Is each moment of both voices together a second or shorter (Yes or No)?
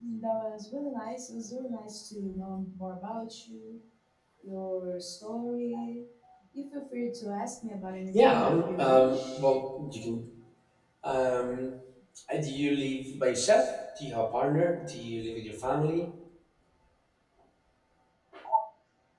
No